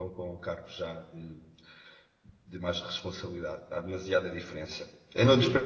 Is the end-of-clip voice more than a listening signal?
No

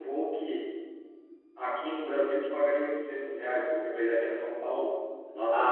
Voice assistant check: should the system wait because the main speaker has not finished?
No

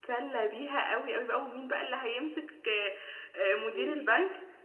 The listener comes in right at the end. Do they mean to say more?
No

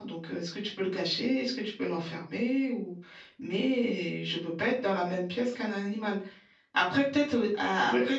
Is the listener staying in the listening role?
Yes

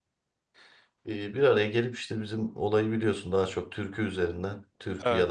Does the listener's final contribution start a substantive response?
No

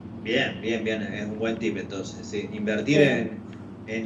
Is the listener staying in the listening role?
Yes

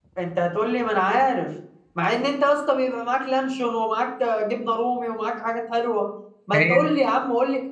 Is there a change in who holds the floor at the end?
No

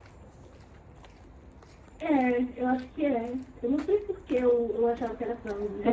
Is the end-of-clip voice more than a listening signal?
Yes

